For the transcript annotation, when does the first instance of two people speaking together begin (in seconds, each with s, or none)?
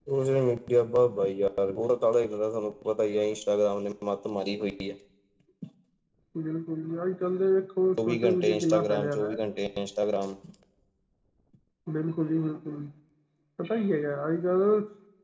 8.0 s